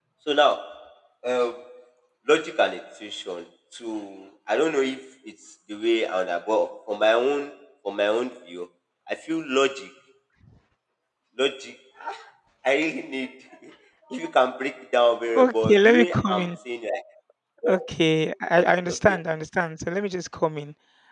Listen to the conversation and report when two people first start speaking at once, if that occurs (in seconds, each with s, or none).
15.3 s